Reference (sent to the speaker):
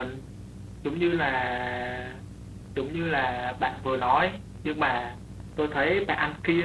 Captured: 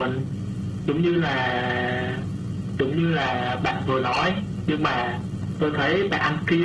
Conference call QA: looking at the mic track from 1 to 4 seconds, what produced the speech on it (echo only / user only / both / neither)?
echo only